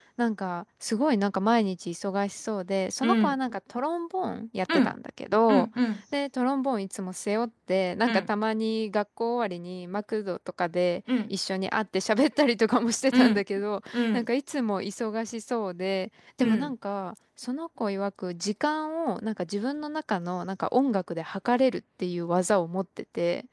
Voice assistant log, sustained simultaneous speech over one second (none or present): none